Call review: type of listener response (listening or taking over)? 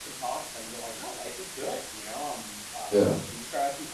listening